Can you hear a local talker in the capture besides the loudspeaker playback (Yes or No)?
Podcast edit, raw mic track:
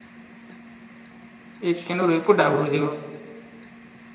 Yes